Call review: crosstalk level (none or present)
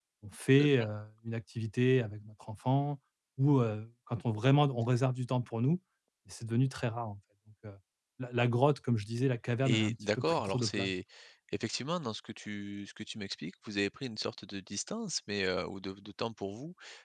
present